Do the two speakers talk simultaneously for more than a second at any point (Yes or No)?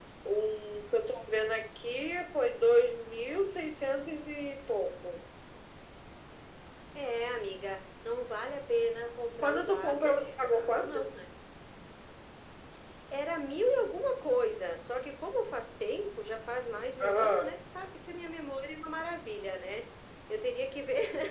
Yes